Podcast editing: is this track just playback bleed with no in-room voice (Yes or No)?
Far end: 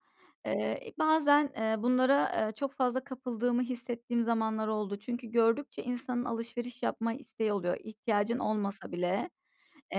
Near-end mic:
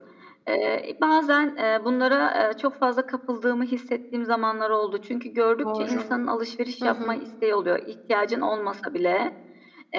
No